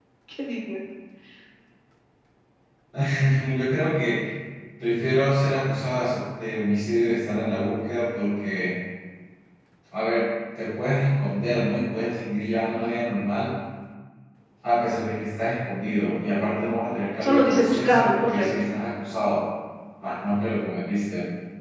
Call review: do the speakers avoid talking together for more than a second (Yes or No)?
No